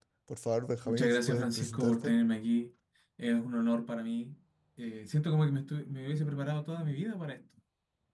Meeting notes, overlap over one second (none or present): present